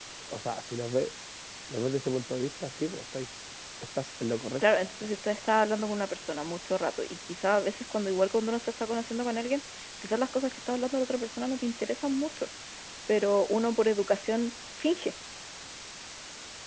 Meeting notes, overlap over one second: none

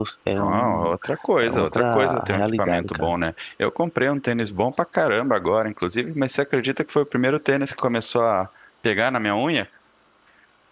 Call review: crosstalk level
present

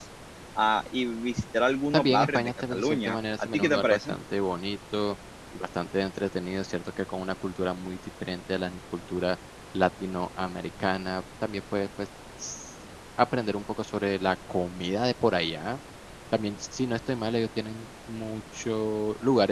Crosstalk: present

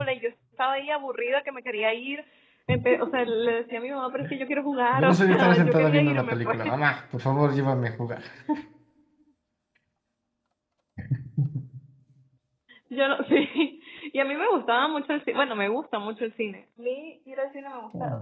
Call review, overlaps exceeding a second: present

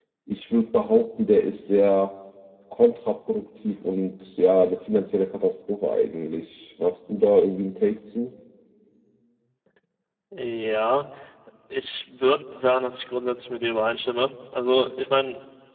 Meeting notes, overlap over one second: none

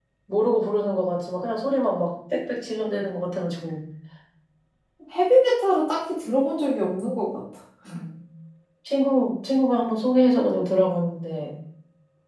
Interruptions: none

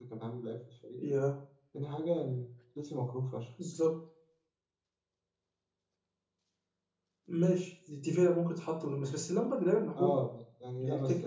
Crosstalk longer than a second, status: none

